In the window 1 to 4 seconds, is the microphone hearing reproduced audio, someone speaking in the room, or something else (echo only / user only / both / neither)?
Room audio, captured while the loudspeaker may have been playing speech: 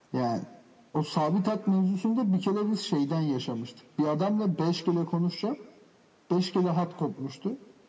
echo only